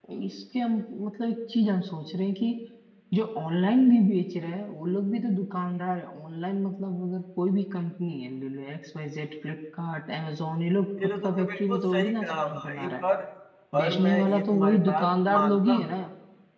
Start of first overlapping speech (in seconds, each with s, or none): 11.0 s